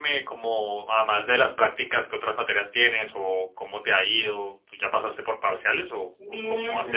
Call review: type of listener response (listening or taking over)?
taking over